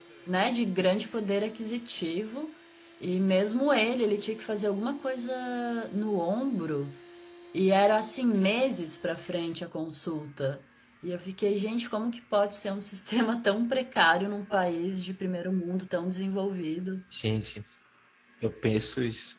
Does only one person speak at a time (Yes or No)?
Yes